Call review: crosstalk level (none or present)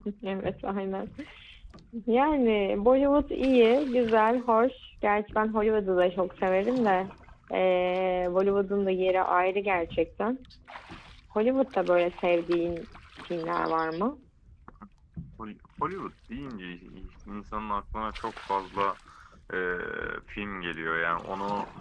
none